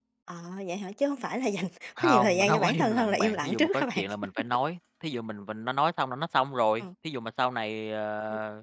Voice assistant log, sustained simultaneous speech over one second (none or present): present